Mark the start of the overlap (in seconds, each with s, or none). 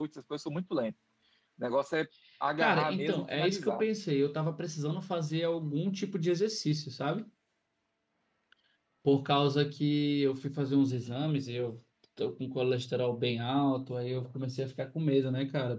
2.6 s